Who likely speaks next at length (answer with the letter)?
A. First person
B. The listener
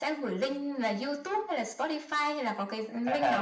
B